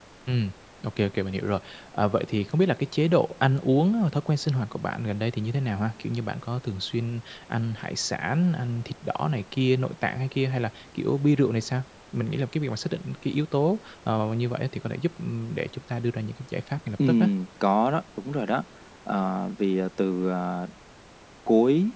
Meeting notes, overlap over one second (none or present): none